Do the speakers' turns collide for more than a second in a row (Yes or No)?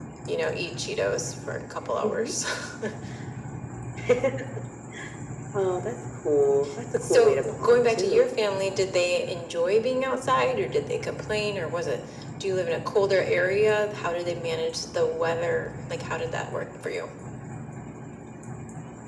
Yes